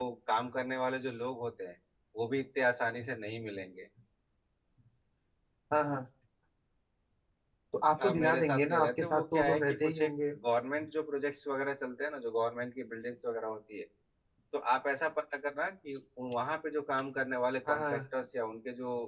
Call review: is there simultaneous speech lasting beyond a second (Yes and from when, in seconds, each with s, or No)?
Yes, from 8.0 s